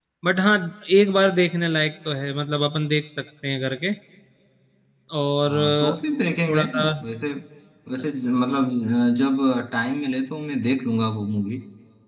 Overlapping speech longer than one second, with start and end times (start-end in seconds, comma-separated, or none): none